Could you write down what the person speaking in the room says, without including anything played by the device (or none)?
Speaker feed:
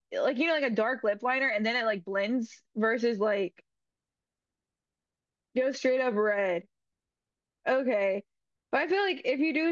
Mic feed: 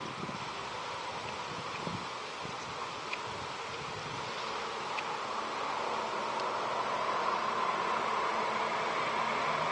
none